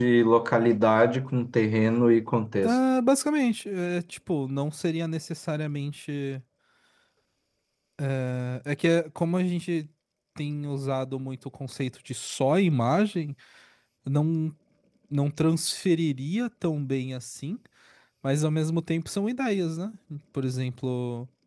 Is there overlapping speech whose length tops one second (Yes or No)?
No